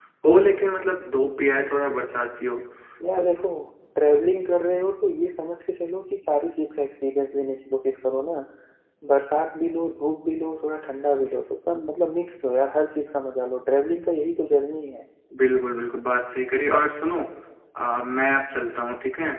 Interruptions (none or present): none